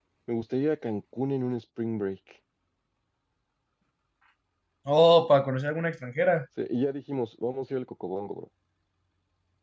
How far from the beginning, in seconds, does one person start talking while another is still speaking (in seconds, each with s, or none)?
none